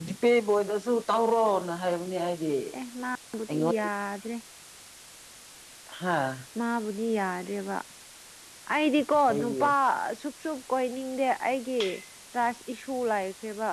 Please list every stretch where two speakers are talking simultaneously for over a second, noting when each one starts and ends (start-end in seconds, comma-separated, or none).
none